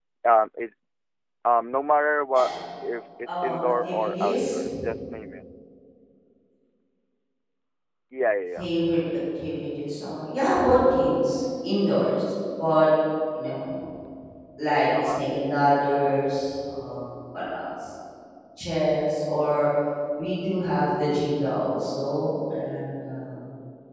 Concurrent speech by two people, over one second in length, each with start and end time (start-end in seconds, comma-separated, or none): 3.3-4.6